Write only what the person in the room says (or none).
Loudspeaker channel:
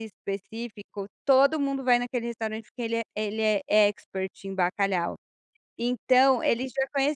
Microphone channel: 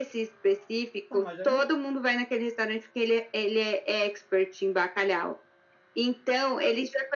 Tá, mas aí não